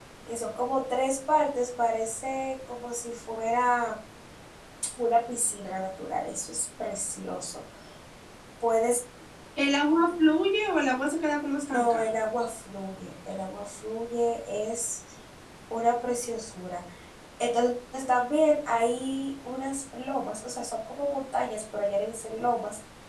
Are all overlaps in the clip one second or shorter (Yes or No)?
Yes